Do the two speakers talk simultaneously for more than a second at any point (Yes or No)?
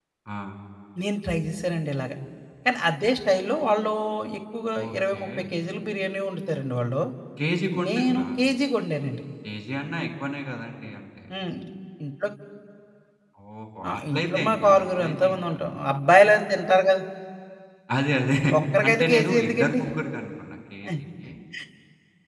Yes